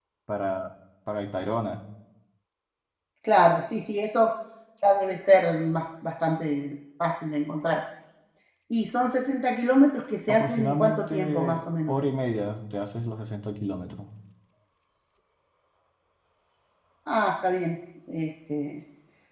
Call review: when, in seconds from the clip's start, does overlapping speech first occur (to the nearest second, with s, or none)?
10 s